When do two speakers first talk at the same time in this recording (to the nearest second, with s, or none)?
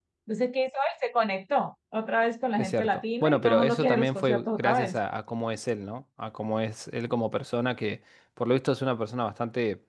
3 s